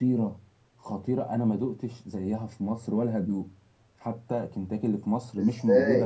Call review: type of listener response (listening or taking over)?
taking over